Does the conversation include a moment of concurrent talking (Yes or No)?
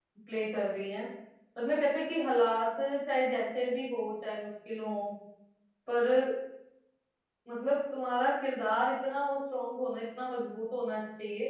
No